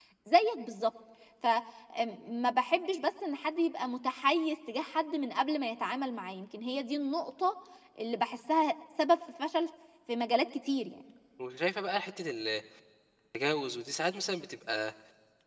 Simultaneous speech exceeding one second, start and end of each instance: none

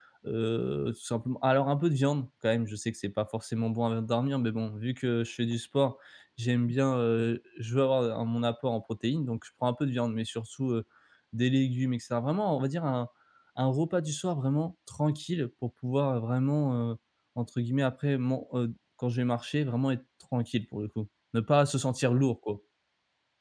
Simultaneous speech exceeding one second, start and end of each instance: none

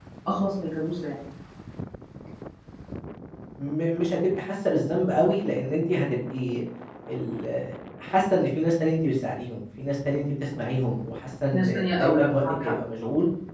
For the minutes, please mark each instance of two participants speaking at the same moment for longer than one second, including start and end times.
11.5-12.7

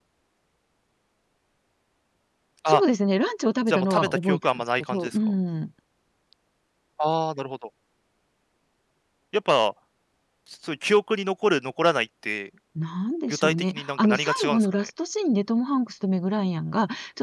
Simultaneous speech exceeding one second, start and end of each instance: 3.7-5.3, 13.3-14.9

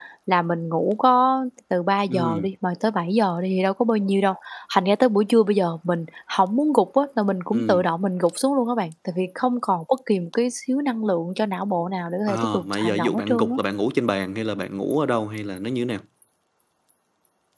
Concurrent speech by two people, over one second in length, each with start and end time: 12.3-13.6

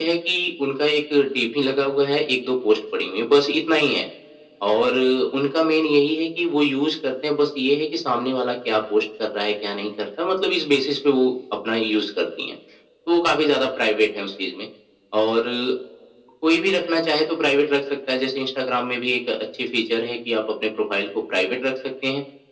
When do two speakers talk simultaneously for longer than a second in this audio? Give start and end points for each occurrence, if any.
none

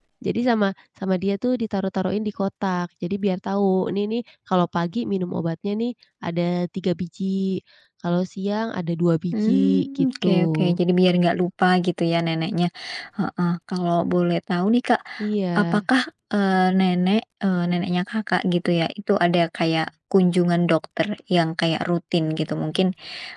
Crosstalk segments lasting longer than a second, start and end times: 9.3-10.7

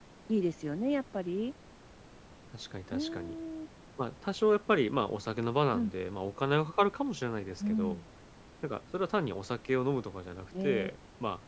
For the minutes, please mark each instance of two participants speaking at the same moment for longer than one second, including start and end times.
none

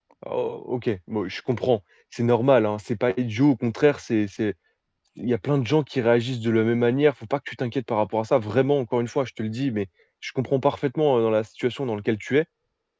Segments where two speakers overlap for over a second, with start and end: none

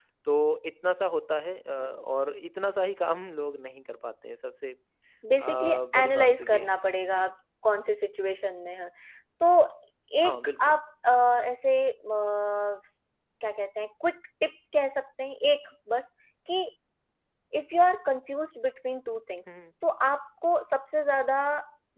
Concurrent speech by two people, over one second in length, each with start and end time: 5.4-7.3

